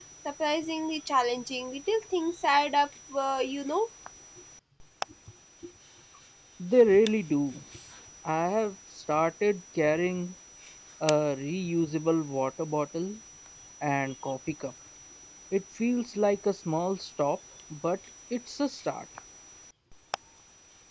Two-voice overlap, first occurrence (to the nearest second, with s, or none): none